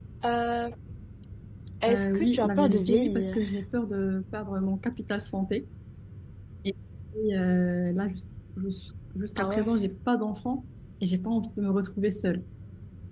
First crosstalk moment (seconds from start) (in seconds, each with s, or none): 1.9 s